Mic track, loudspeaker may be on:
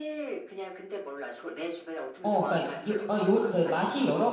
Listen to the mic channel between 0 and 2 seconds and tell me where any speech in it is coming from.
echo only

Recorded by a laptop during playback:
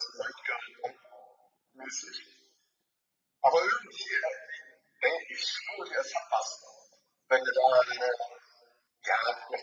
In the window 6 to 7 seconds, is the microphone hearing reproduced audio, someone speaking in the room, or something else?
echo only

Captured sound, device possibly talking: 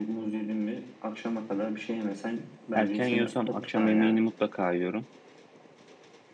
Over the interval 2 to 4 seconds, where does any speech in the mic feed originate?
both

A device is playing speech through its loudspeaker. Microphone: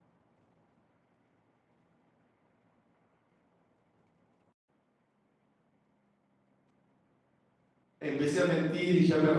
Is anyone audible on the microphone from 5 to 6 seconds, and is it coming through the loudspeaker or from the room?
neither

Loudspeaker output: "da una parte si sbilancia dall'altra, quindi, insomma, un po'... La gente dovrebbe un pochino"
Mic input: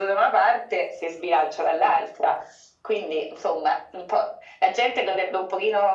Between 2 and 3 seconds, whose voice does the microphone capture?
echo only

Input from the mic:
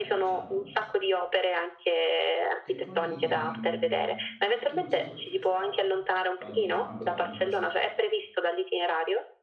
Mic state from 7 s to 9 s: both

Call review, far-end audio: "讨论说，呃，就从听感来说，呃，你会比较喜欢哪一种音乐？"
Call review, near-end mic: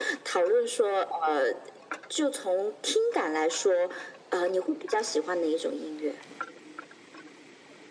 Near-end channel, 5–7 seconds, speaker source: echo only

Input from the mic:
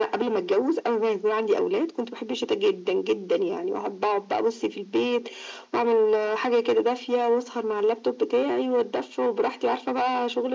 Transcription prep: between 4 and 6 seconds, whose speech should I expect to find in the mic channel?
echo only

